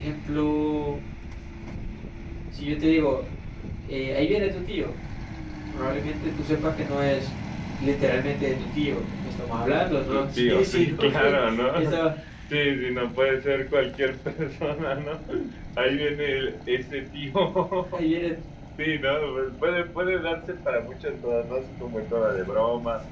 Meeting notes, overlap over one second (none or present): present